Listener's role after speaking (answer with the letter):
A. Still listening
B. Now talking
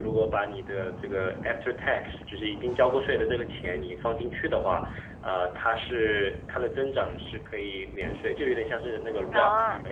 A